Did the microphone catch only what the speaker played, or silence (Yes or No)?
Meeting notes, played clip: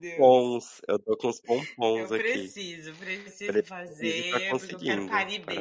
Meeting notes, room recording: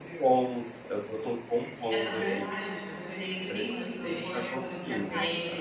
No